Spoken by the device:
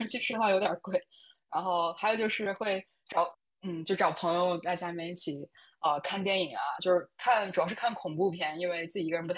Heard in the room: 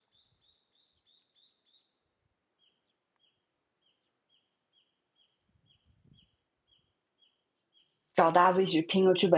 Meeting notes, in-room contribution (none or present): present